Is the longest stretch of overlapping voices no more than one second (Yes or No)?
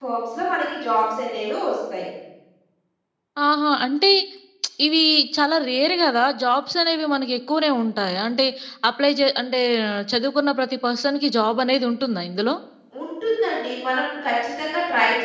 Yes